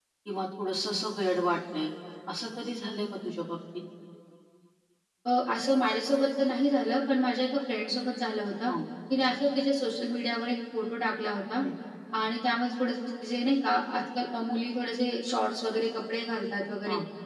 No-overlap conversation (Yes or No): Yes